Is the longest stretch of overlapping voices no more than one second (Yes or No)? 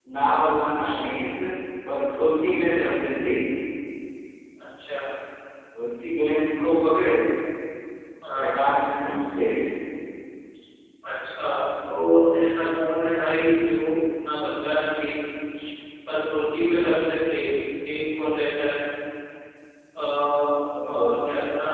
Yes